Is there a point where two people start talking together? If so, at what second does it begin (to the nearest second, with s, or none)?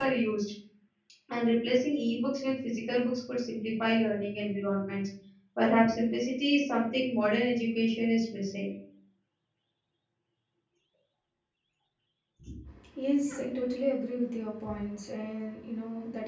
none